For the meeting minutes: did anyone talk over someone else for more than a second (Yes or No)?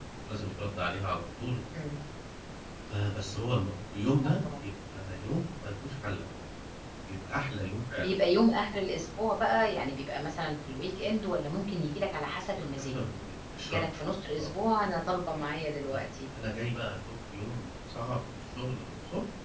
No